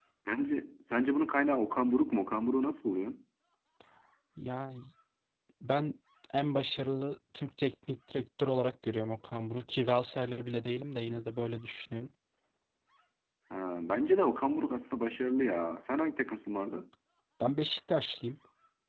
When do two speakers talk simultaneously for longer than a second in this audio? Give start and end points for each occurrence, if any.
none

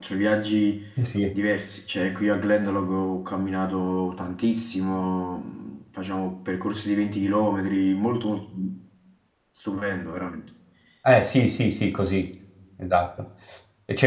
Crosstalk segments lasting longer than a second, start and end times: none

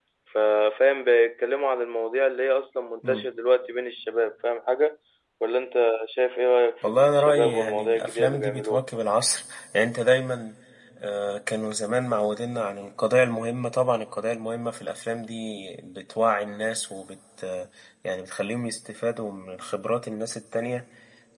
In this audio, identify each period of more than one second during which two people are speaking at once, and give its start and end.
6.8-8.8

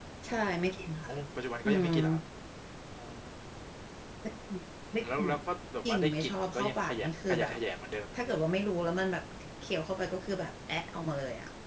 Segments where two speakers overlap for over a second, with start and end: 5.8-7.5

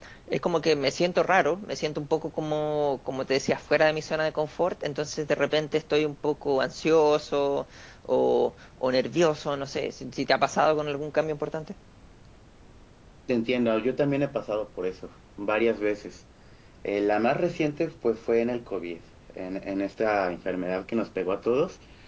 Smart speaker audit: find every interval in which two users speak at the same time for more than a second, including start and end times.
none

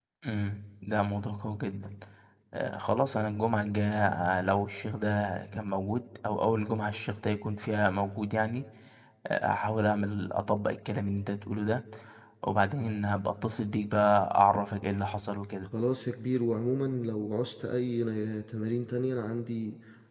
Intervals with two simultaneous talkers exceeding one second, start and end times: none

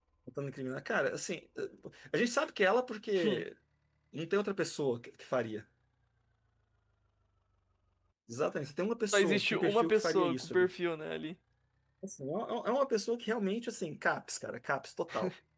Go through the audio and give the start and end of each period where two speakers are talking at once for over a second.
9.1-10.7

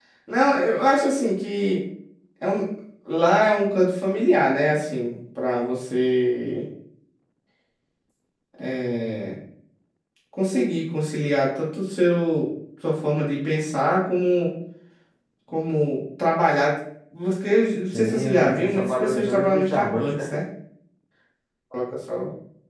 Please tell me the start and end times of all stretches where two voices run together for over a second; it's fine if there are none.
17.9-20.3

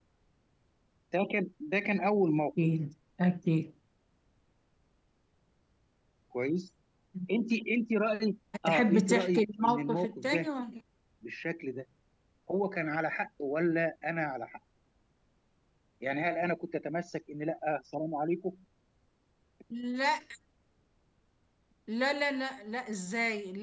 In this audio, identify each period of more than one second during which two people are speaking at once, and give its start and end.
8.6-10.5

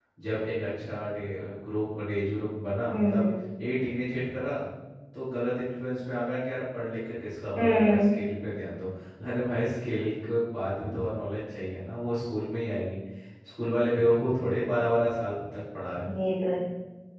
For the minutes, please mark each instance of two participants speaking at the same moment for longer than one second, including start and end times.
none

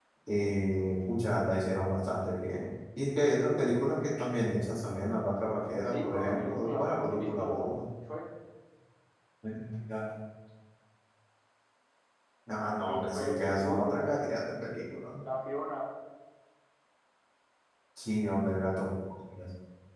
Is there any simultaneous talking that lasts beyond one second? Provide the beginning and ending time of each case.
5.9-7.8, 12.9-14.1

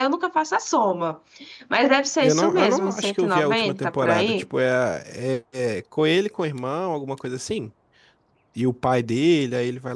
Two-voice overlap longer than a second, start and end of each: 2.2-4.4

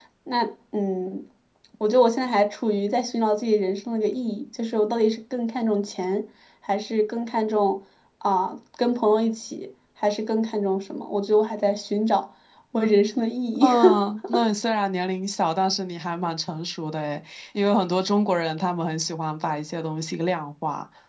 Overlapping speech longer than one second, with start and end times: none

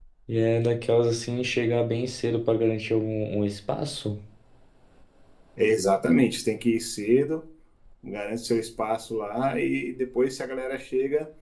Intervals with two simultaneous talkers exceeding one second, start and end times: none

